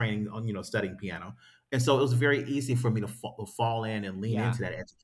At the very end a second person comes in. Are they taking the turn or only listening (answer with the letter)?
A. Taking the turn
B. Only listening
B